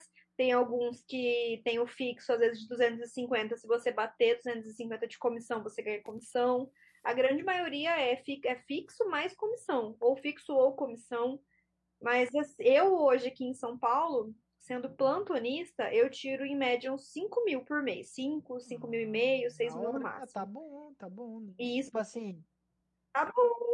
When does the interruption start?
18.7 s

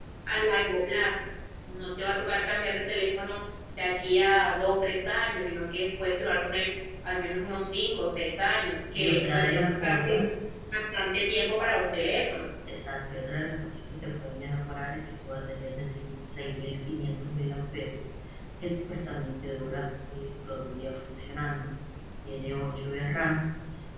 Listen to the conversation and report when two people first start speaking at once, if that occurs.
8.9 s

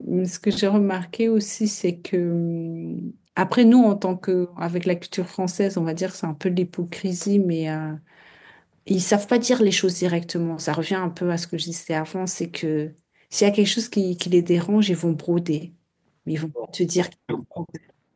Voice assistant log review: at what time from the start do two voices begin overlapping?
none

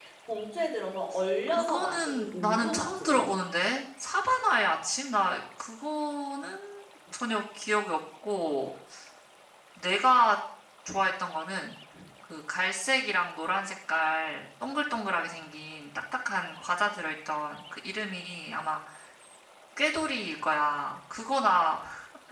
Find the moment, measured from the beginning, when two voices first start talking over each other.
1.5 s

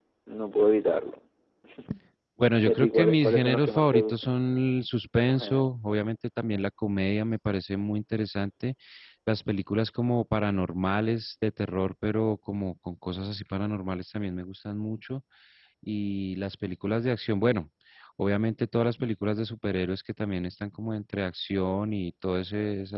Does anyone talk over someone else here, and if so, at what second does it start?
2.6 s

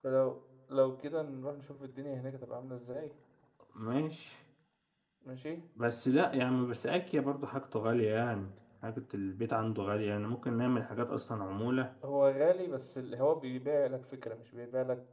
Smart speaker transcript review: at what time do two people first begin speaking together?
none

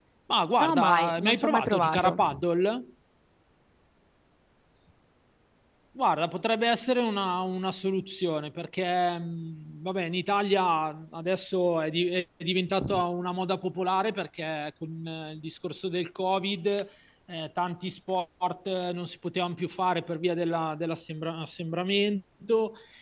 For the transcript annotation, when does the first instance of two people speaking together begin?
0.6 s

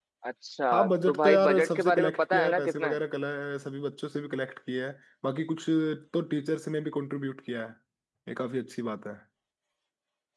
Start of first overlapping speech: 0.7 s

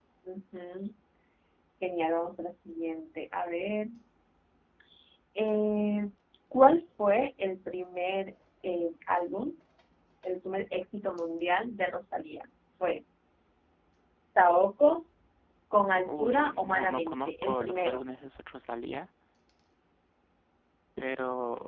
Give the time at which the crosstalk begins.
16.1 s

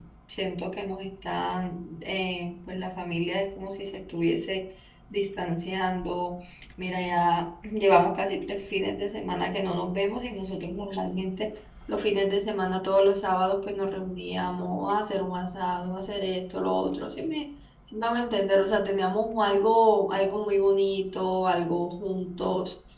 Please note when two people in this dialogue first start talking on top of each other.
none

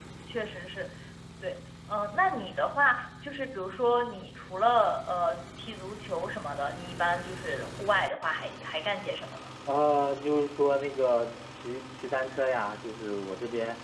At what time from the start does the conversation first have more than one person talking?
none

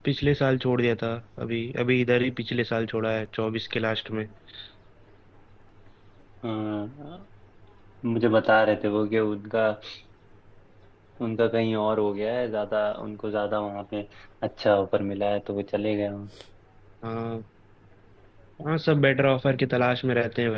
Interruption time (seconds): none

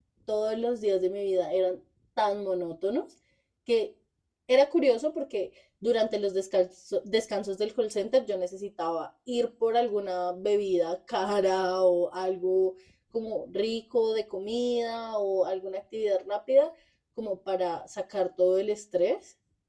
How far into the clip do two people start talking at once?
none

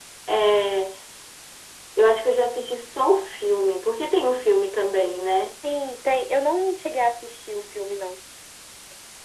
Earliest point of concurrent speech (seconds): none

